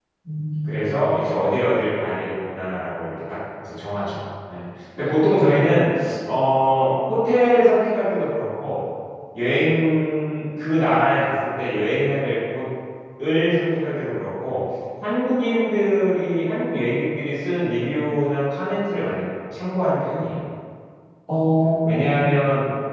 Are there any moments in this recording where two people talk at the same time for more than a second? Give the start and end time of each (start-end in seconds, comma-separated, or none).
none